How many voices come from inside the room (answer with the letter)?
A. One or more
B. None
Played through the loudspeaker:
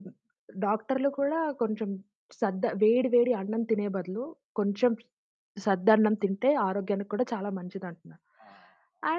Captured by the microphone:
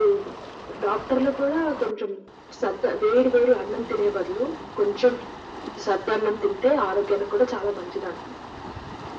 B